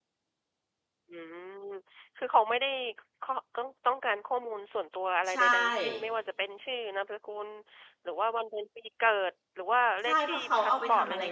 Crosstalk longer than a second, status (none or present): present